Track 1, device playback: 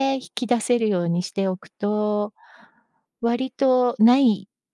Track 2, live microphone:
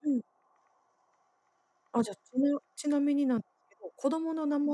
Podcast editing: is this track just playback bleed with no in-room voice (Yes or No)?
No